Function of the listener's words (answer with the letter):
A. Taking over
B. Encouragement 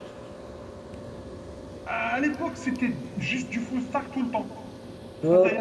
B